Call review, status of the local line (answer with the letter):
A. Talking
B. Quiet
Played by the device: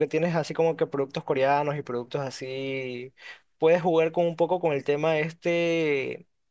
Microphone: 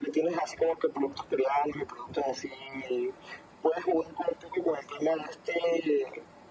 B